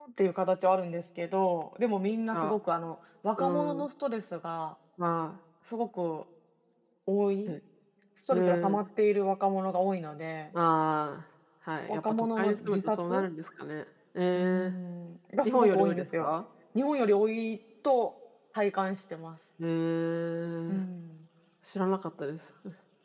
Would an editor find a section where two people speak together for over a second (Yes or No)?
Yes